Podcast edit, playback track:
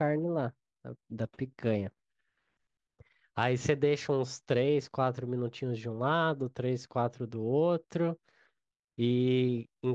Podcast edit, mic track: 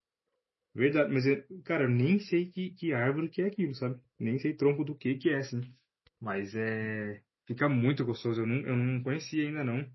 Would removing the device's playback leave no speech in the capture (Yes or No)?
No